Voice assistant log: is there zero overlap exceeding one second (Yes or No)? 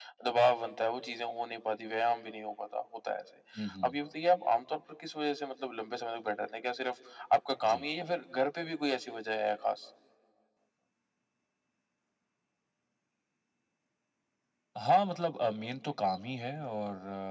Yes